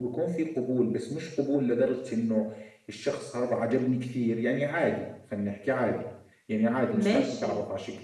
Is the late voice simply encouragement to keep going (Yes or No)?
Yes